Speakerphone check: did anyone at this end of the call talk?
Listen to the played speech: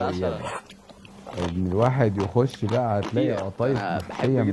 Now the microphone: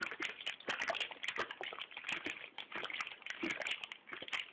No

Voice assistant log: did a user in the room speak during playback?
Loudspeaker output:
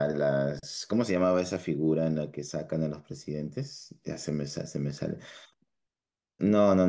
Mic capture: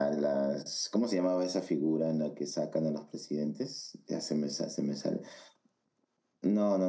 No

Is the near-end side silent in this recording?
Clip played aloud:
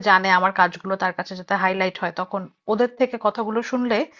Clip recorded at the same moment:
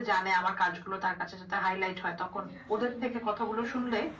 No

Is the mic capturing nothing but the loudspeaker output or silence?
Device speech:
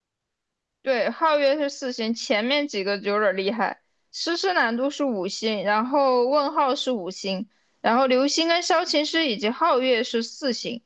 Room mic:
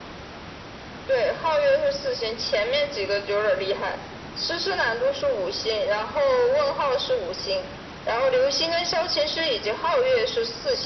Yes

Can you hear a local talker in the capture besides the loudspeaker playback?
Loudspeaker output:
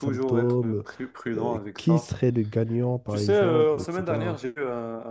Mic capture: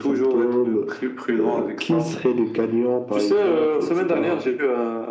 No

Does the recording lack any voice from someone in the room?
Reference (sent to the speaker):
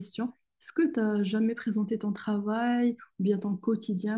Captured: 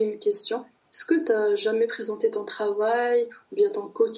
Yes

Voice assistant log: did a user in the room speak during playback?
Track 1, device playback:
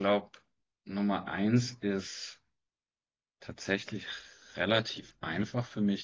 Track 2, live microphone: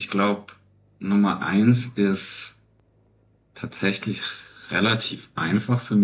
No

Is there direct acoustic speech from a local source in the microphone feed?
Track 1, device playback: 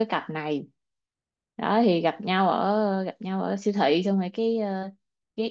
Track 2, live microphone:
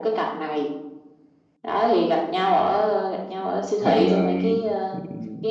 Yes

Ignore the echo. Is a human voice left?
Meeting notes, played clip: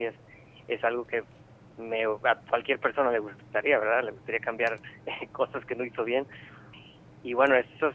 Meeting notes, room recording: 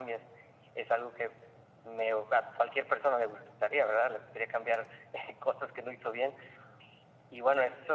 No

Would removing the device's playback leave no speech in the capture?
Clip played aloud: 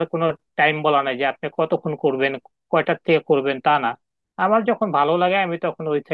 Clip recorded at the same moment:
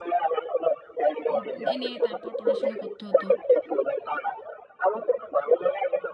No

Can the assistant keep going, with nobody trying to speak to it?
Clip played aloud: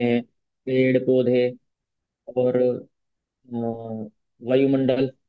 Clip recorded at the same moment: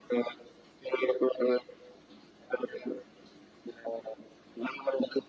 Yes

